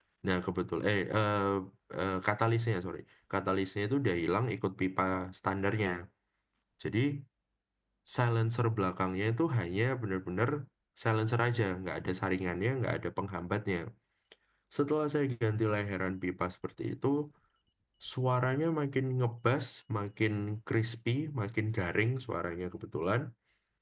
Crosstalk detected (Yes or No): No